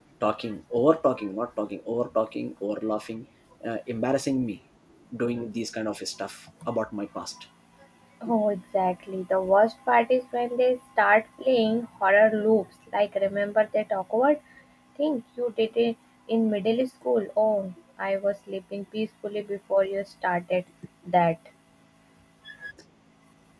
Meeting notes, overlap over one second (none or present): none